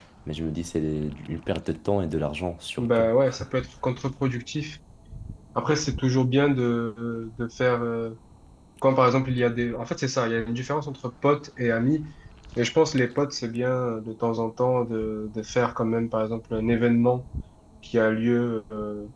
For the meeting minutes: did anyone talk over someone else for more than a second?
No

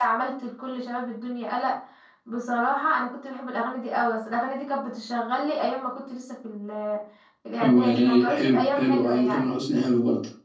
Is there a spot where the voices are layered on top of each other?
Yes, from 7.6 s

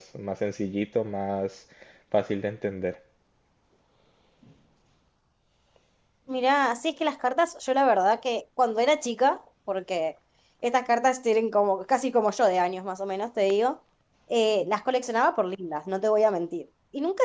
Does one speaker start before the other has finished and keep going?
No

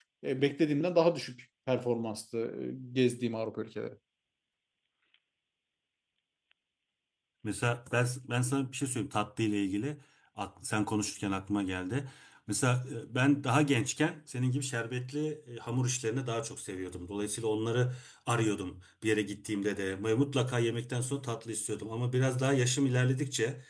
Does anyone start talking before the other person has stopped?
No

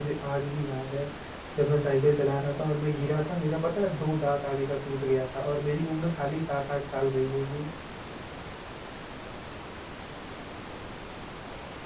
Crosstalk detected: No

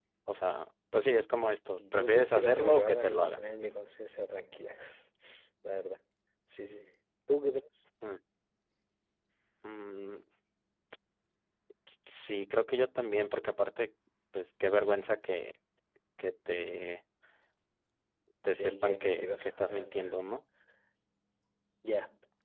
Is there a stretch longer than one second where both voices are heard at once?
Yes, from 1.8 s

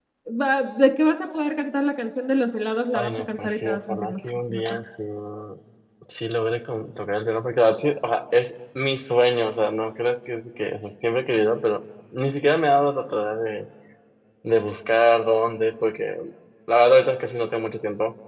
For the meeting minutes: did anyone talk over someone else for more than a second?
Yes, from 2.9 s

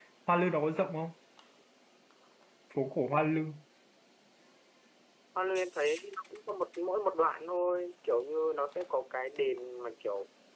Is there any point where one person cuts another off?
No

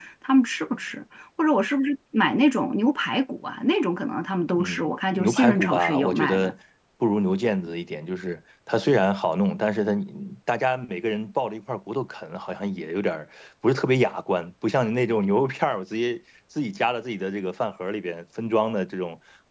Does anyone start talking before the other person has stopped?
Yes, from 4.5 s

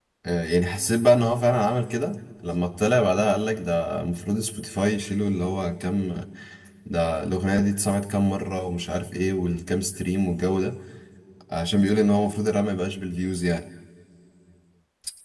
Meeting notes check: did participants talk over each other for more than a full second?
No

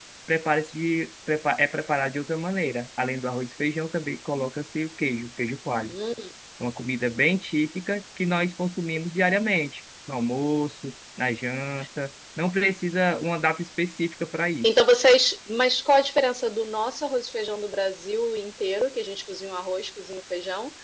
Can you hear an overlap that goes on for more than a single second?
No

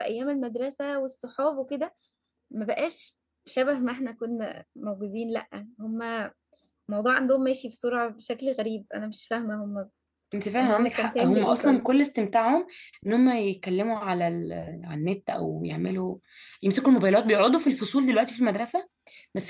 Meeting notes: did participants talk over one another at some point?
Yes, from 10.6 s

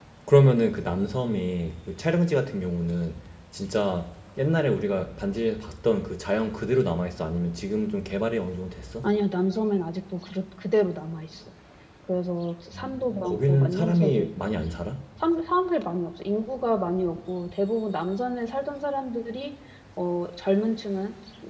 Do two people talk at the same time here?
Yes, from 12.8 s

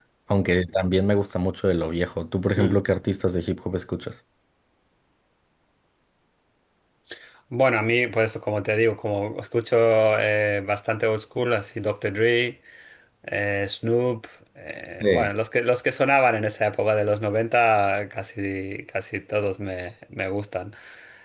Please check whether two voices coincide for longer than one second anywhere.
No

